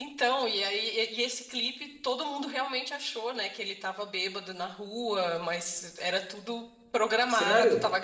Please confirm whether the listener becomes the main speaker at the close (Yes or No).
No